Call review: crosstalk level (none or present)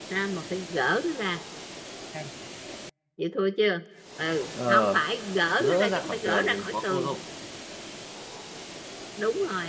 present